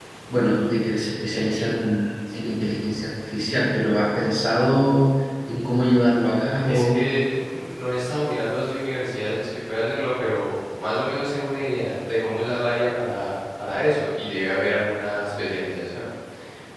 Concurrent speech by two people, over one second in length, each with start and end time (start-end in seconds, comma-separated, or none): none